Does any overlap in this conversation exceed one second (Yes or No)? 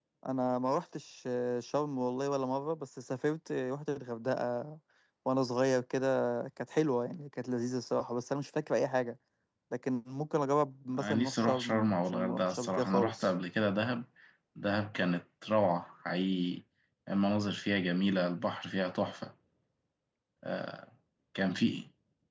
Yes